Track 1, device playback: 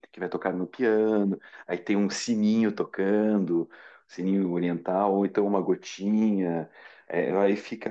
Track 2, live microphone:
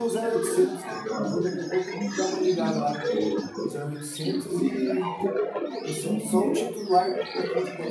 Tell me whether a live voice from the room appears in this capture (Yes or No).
Yes